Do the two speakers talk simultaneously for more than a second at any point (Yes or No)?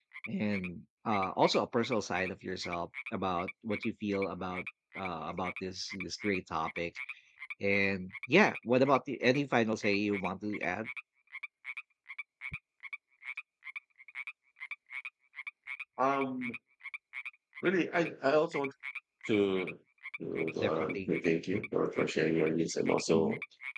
No